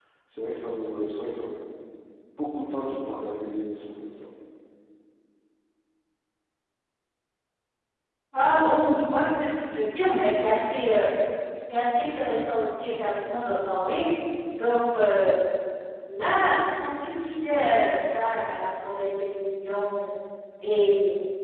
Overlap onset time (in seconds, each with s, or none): none